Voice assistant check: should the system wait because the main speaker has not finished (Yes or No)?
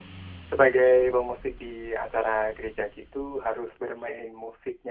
Yes